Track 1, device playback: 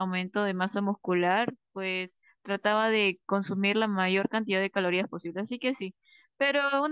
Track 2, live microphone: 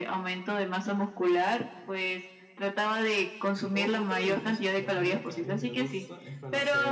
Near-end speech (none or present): present